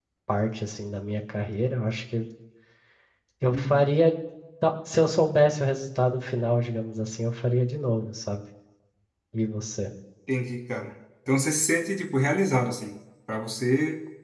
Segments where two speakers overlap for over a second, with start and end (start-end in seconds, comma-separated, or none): none